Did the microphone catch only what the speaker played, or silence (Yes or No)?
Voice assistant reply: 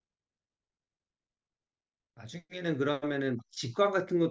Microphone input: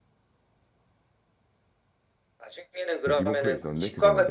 No